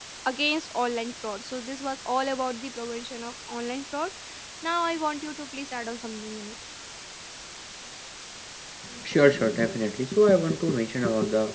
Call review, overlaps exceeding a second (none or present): none